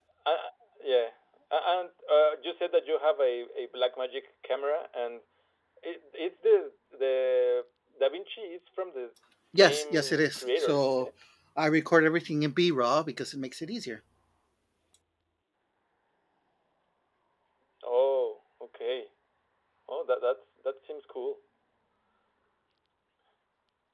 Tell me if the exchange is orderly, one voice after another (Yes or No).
No